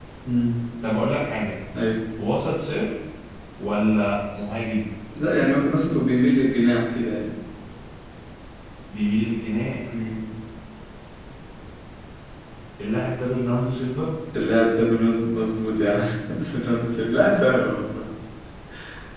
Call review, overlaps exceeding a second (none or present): none